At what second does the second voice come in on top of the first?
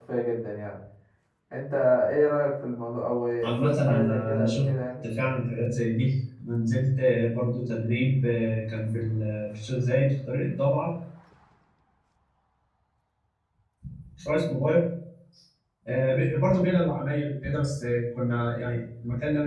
3.4 s

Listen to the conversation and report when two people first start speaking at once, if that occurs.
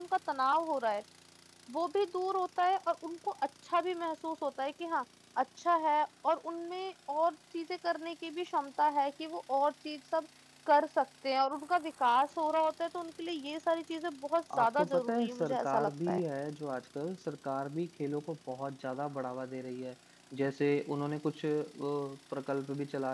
14.5 s

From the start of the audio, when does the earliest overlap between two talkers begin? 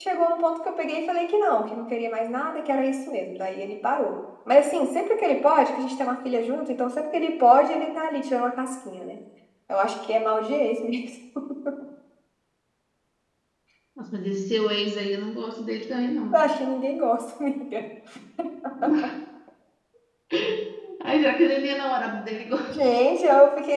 none

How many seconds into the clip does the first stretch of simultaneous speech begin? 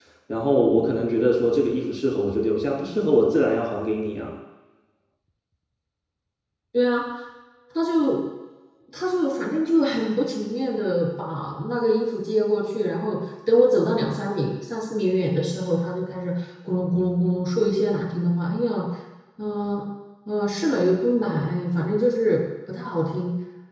none

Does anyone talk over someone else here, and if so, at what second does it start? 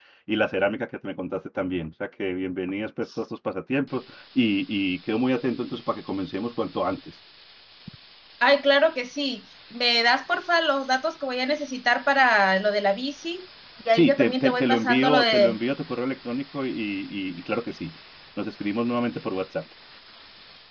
13.9 s

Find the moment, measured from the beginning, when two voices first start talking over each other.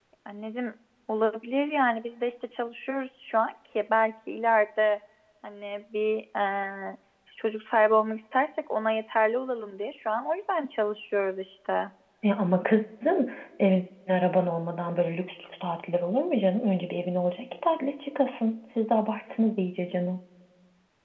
none

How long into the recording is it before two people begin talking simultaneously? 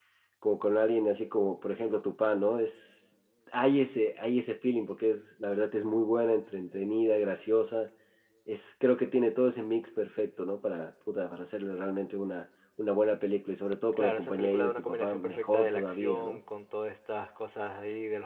13.9 s

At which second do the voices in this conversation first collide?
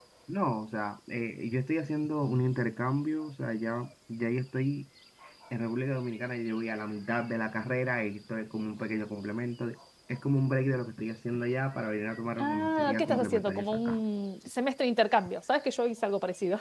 12.4 s

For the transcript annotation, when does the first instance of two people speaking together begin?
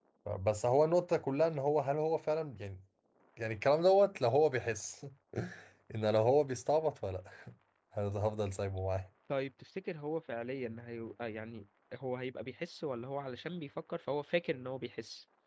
none

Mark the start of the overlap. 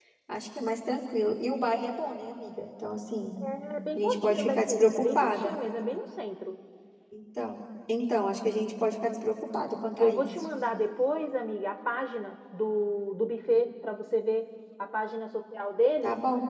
4.0 s

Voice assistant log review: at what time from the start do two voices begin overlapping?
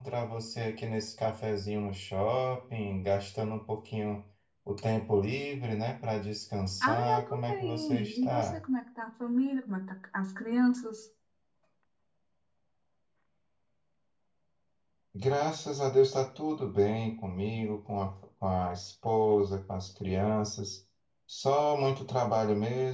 6.8 s

